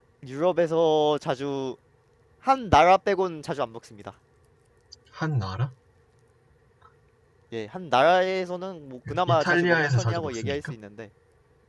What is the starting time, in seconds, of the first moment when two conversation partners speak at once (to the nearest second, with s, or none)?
9 s